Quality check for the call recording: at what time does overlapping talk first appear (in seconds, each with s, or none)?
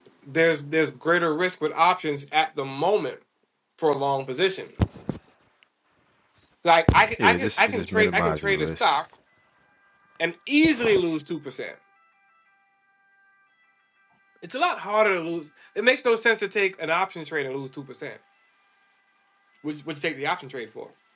7.2 s